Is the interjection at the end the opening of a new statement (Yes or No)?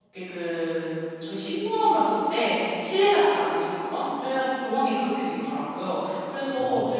No